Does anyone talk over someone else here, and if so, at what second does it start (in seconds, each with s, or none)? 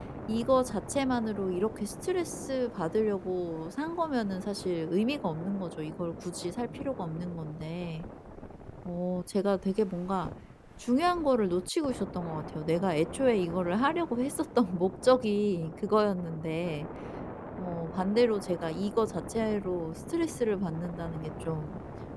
none